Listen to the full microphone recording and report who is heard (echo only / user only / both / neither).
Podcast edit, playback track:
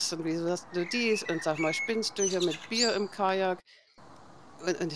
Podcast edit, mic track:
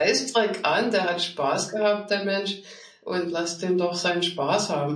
user only